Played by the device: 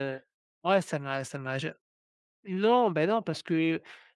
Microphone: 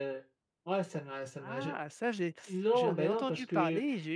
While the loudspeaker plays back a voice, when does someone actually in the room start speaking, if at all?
1 s

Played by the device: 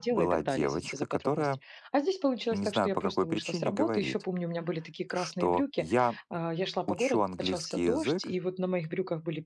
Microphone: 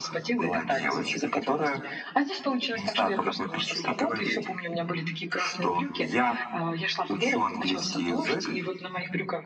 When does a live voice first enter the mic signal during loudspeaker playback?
none

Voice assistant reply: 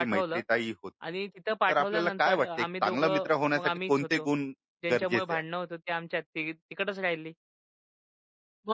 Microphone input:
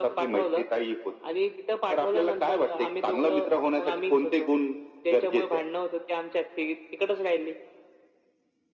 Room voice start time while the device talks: none

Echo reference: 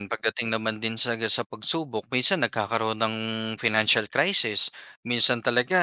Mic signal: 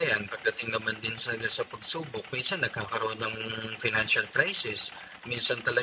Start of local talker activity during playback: none

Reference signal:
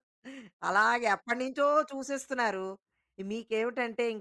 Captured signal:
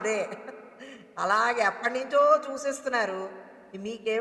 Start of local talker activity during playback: none

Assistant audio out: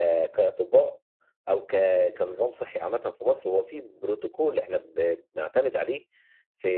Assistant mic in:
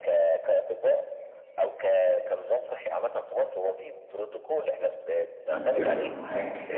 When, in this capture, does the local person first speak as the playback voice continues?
5 s

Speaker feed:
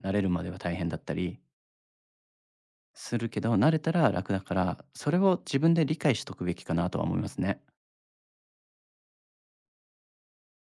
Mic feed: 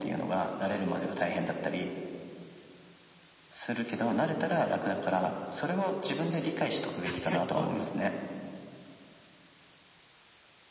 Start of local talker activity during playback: 7 s

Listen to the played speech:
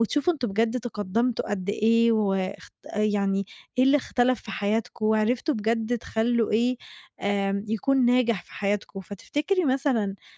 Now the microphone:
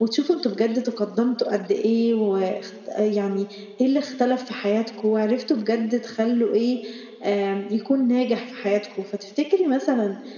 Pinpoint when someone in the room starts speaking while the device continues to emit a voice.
none

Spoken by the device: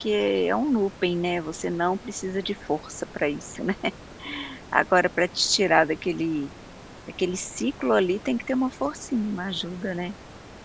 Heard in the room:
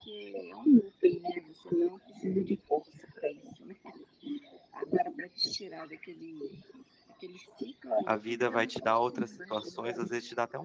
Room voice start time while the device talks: 8 s

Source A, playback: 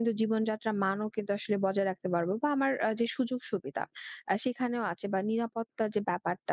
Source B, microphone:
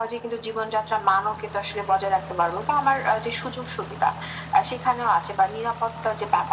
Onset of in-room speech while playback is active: none

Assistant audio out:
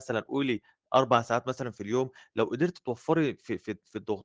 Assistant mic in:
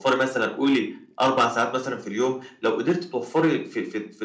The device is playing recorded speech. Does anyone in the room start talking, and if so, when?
none

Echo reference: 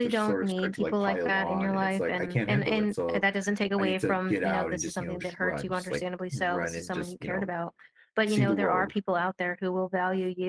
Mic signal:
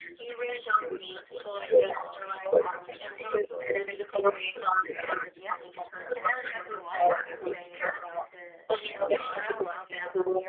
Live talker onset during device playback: 5 s

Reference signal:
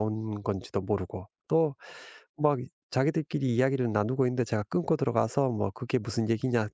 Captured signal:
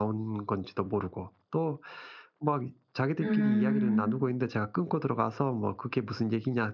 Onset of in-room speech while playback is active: 3 s

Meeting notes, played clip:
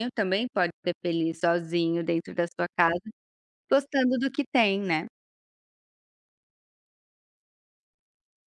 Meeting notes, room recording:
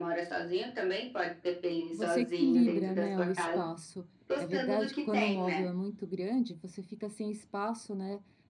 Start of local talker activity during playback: 2 s

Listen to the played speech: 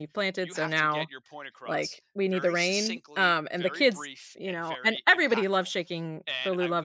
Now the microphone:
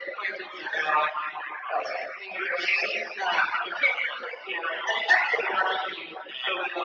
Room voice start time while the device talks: none

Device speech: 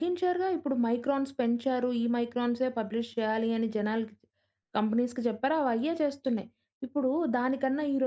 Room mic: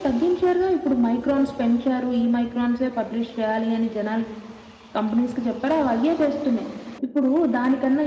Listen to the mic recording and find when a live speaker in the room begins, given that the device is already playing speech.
none

